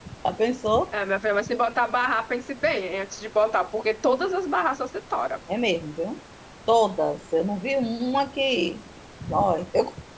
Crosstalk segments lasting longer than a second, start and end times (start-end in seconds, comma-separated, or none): none